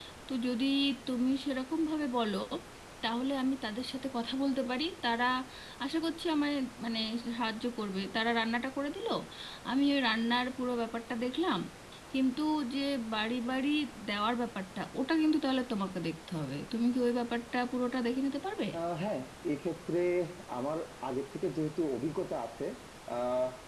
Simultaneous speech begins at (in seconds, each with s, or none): none